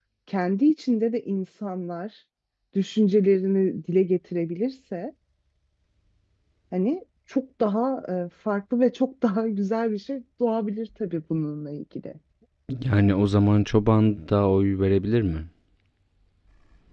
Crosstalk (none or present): none